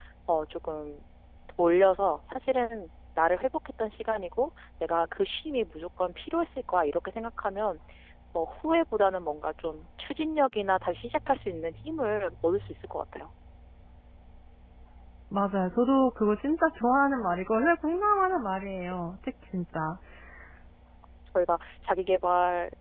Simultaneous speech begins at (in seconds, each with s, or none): none